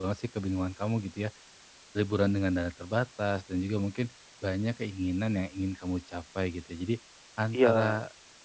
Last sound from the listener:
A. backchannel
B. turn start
A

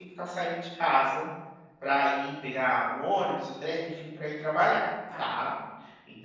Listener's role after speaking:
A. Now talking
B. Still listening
B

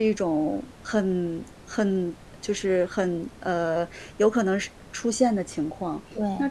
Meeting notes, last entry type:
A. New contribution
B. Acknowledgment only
B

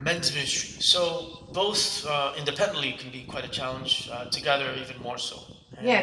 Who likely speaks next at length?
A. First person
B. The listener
B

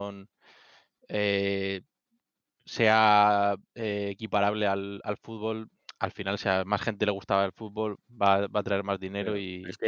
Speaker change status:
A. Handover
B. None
A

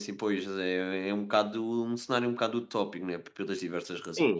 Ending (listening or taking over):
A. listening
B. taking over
B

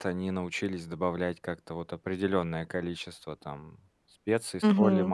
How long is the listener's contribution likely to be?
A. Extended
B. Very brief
B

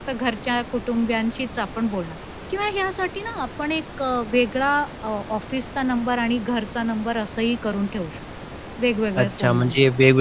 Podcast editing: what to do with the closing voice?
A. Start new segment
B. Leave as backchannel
A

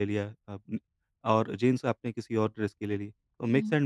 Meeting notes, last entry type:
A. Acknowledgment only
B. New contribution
A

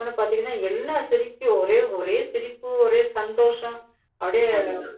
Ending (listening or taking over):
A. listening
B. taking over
A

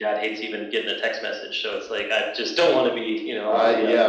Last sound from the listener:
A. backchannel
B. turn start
B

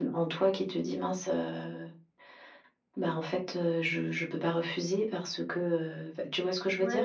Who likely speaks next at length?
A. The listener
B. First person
A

